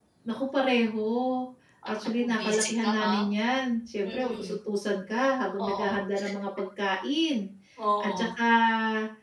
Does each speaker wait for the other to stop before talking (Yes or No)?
No